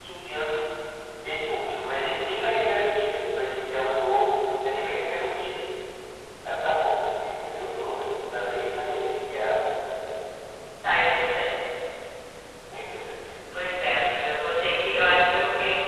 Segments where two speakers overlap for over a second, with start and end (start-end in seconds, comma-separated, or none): none